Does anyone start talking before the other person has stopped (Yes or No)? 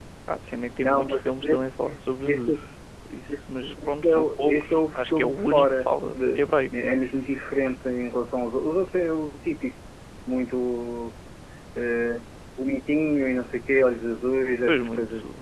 Yes